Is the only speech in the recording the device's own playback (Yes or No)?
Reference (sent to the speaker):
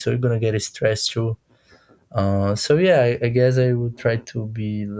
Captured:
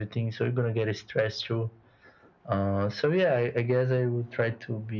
Yes